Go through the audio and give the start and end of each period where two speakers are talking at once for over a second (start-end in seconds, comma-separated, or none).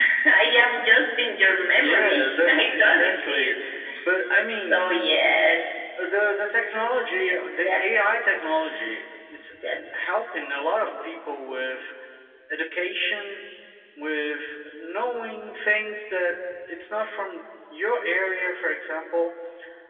1.7-3.6